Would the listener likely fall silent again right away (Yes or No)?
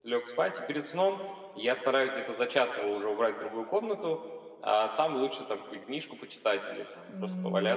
No